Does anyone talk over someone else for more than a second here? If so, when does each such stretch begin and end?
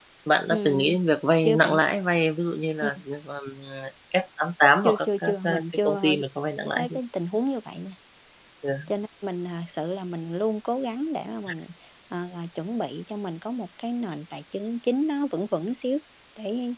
4.8-6.2

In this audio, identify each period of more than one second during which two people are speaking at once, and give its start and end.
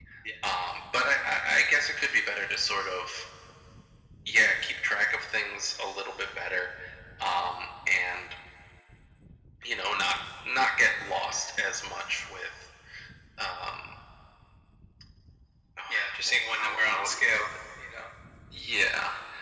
15.9-17.5

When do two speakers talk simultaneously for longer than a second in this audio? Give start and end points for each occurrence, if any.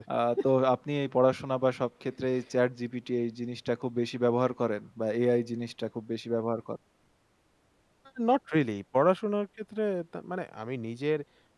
none

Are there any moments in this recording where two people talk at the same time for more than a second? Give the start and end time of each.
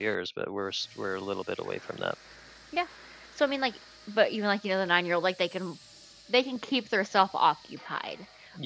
none

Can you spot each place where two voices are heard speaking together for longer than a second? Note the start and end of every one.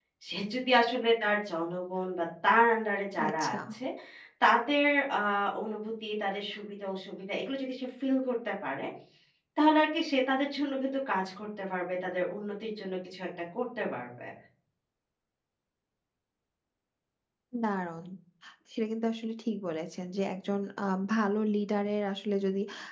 none

